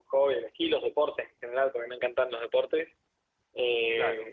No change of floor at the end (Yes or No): Yes